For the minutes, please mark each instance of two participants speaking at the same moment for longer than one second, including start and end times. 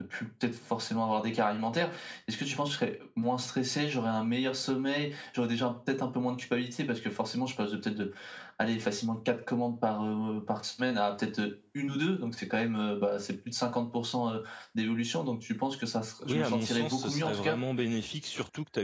16.2-17.6

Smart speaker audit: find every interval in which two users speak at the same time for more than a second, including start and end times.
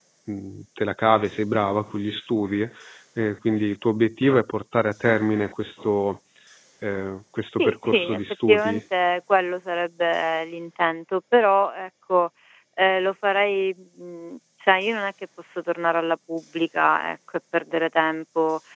7.5-8.8

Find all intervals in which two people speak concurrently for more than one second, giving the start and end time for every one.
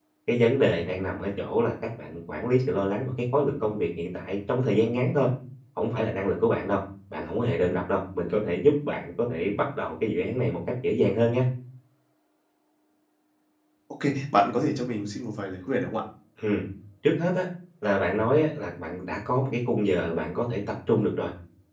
none

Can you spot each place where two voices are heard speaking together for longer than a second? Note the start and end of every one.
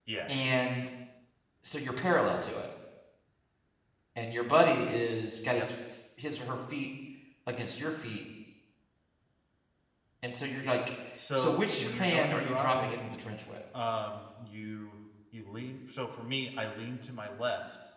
11.3-13.0

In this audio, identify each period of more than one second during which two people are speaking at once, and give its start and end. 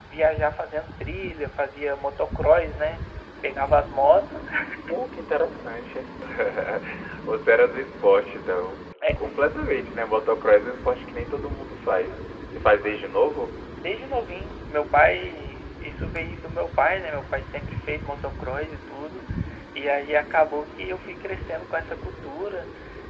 none

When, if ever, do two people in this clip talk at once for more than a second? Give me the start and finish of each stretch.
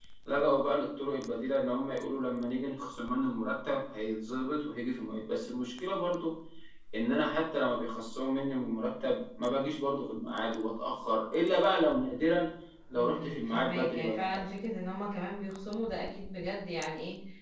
12.9-14.4

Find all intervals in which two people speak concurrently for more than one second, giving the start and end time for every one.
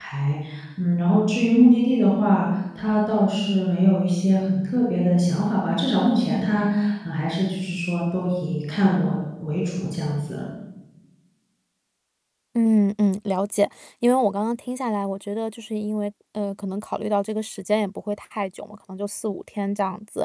none

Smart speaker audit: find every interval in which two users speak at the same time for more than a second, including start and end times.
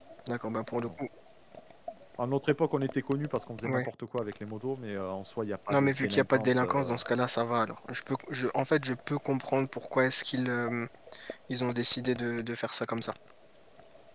5.7-7.0

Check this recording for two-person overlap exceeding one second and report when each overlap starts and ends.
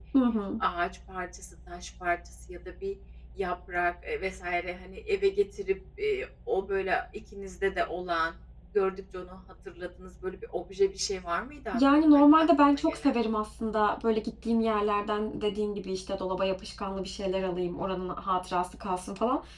11.7-13.1

